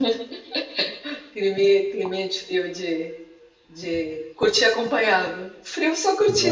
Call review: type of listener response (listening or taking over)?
listening